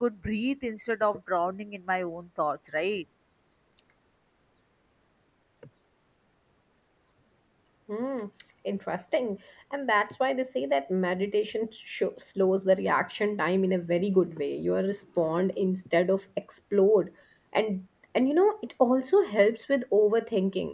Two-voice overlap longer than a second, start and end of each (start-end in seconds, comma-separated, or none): none